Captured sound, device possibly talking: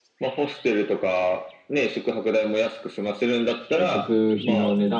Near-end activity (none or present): present